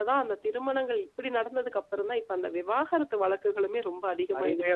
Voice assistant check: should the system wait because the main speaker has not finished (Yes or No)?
No